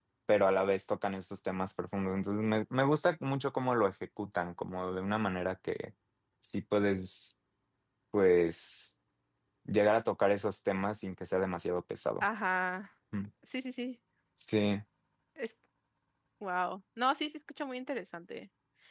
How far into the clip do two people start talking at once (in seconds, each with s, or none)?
none